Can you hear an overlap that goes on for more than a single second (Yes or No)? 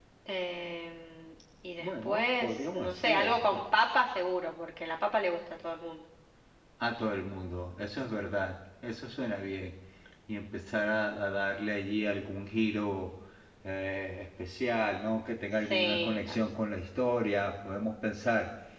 Yes